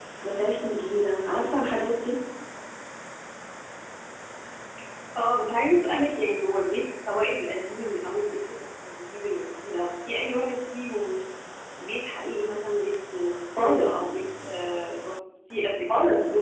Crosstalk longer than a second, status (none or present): none